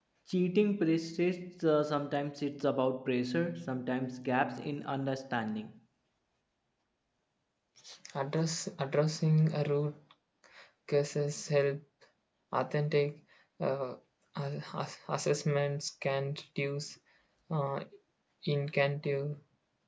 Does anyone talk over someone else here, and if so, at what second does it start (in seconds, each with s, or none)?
none